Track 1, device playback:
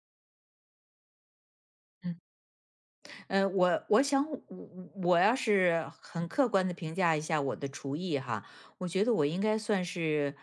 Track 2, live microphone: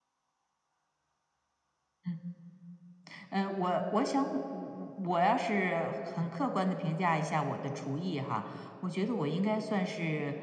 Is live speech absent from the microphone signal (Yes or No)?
Yes